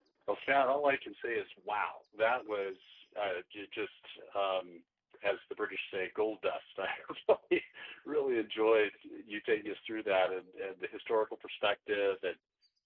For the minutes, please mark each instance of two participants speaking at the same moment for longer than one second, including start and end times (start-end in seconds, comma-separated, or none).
none